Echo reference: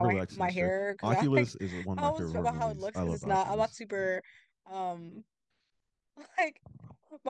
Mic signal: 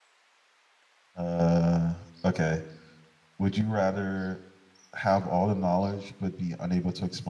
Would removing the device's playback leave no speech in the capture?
No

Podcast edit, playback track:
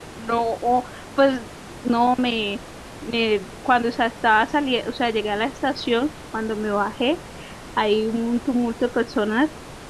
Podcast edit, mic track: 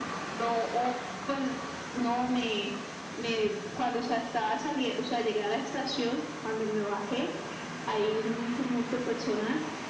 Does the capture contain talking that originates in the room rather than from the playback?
No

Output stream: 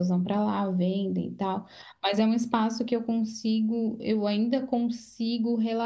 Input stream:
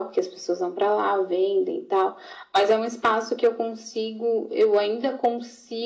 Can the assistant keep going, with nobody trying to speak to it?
Yes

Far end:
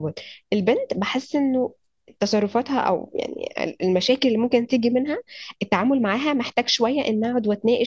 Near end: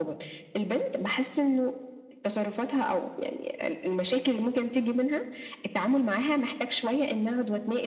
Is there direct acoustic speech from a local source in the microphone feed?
No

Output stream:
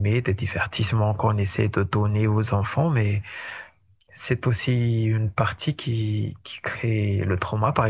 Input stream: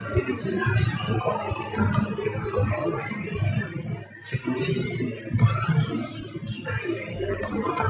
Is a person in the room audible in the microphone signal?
No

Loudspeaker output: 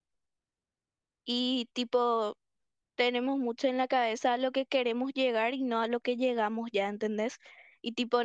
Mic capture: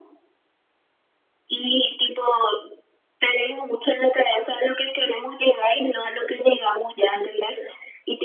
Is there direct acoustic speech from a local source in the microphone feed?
No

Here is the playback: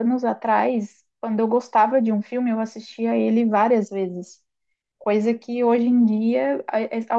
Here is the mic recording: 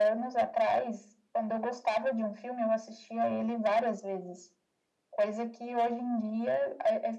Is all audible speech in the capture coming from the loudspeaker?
Yes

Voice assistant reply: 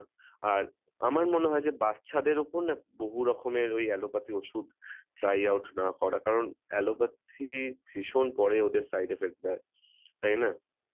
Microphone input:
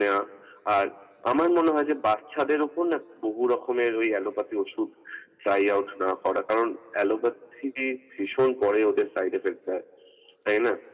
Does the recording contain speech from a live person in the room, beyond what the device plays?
No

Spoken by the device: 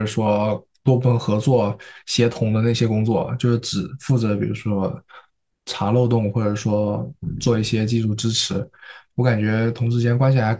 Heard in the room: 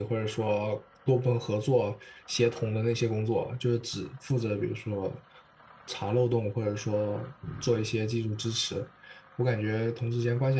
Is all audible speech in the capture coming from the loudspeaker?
Yes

